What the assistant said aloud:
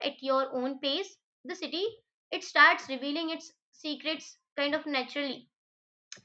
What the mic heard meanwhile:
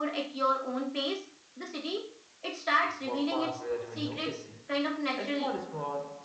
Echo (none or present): present